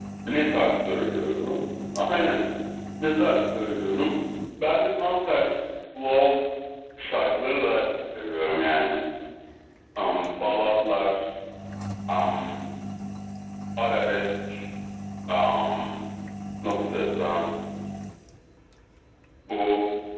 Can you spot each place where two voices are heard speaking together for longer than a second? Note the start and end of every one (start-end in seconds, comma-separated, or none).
none